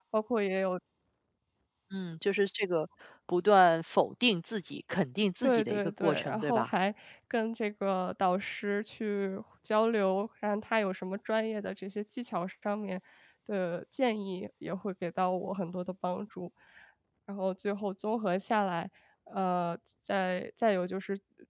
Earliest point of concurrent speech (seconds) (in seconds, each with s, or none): 5.4 s